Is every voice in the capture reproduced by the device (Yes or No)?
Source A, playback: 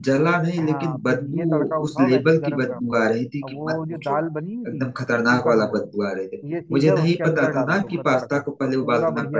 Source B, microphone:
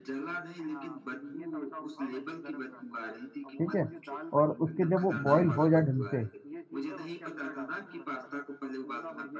No